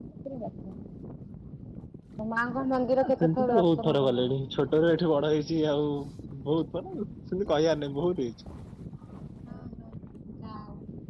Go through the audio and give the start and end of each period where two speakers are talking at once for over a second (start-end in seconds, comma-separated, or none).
3.0-4.3